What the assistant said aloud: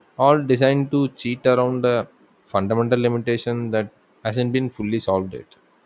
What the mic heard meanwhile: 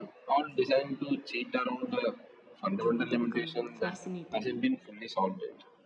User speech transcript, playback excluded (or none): you know, they become fascinating.